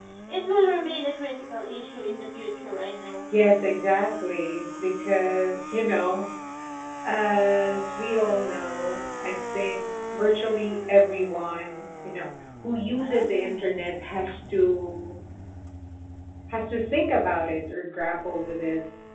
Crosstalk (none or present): none